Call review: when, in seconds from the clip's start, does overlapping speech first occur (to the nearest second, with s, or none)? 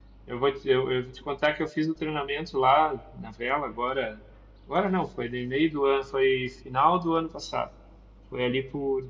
none